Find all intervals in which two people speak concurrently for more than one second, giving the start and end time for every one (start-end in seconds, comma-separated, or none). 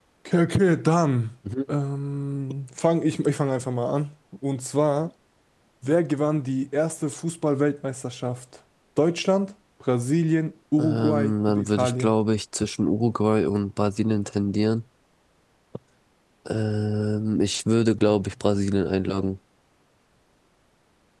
10.8-12.1